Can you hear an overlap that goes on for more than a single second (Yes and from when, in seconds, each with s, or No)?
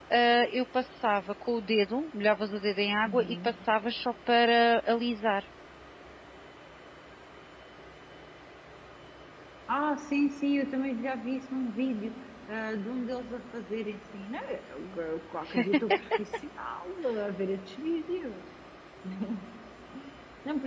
No